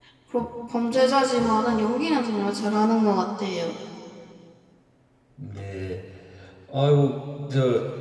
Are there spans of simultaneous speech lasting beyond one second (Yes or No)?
No